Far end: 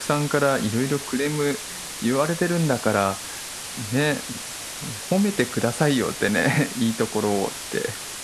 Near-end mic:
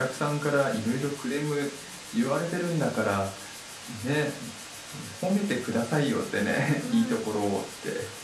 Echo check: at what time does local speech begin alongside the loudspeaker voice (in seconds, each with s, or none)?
6.8 s